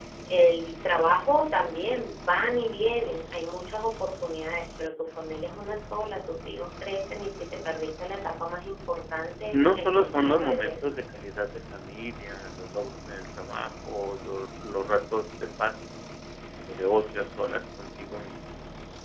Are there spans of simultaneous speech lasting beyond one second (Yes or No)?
Yes